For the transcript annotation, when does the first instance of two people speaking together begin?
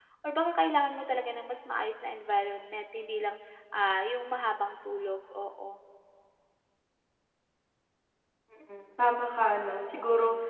none

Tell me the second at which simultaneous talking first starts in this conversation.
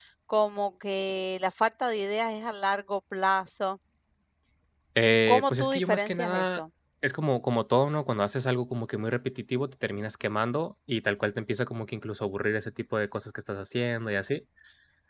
5.3 s

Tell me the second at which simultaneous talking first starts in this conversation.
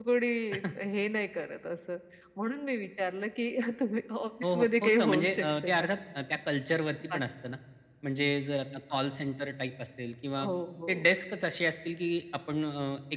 4.4 s

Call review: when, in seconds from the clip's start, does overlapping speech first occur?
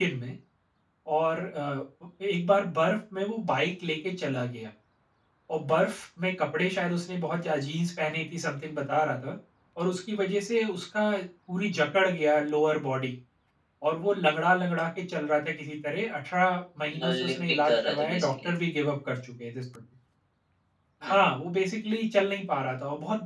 16.9 s

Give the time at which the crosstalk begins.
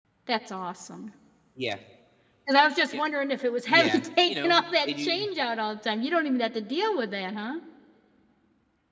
3.7 s

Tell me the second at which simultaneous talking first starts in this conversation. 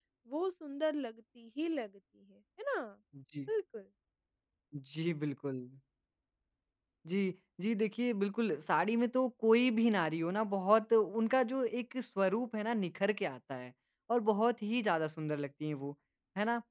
none

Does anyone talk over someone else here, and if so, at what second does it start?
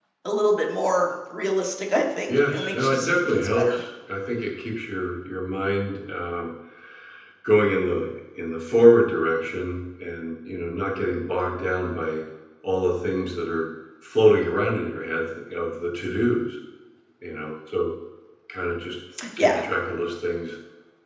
2.3 s

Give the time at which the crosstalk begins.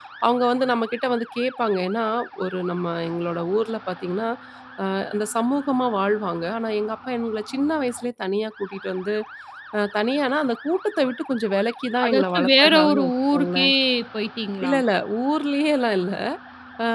12.0 s

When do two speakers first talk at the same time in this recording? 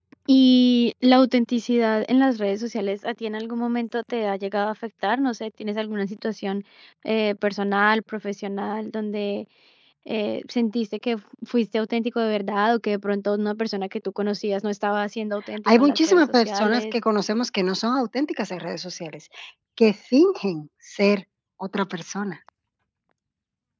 15.7 s

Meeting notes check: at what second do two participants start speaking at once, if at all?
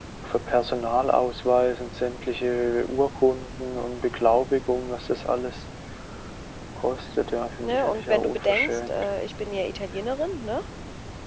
7.6 s

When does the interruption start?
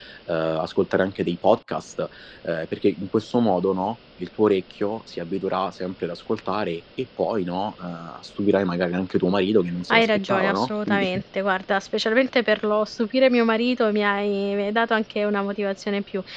9.9 s

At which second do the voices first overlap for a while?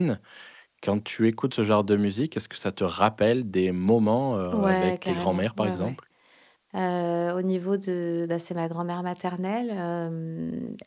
4.5 s

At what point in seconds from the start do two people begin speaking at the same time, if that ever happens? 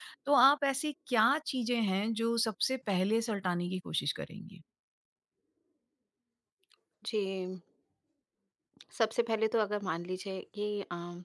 none

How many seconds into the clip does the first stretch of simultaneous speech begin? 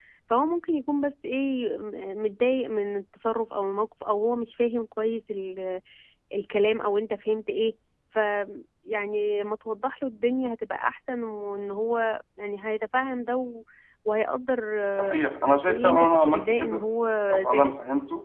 14.9 s

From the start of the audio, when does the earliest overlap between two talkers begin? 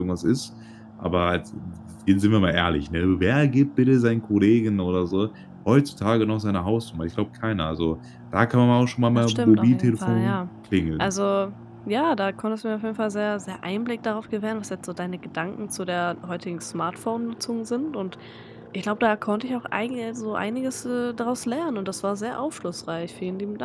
9.1 s

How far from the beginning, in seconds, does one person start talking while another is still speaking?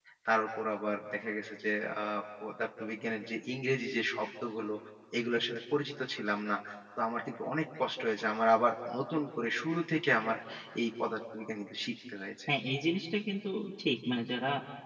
none

